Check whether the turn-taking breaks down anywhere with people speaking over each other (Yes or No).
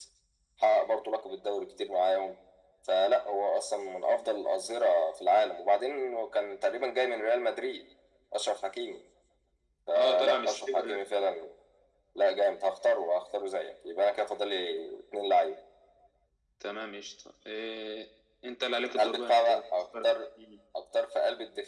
Yes